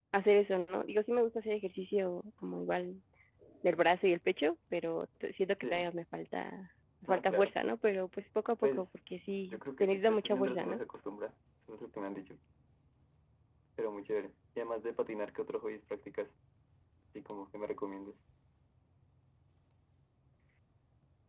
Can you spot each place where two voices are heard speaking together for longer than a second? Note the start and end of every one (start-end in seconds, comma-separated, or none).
9.5-10.8